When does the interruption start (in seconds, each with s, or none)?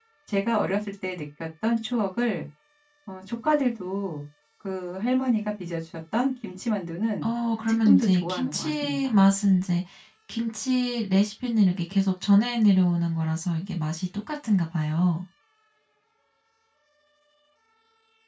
7.8 s